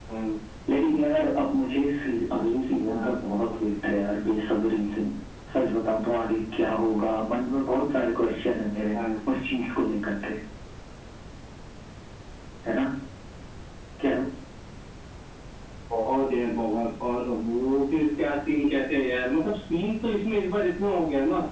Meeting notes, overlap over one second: none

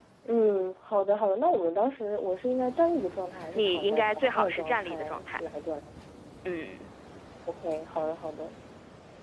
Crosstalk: present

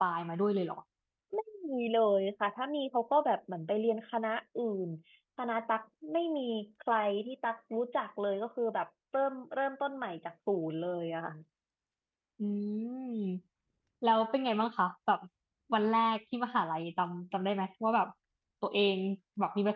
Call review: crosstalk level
none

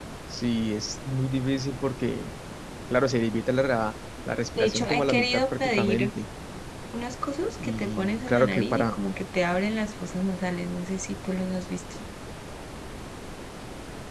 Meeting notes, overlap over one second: present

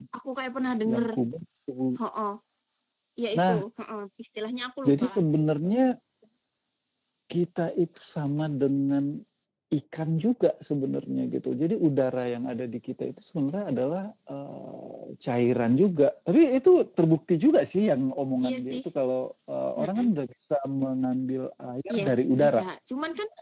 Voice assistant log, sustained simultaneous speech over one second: none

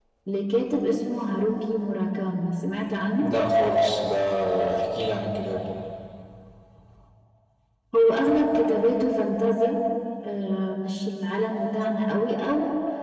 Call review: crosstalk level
none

